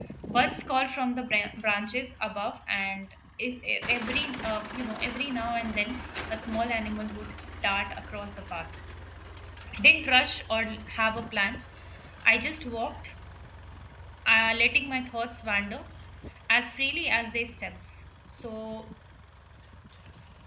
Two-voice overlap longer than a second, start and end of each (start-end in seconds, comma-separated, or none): none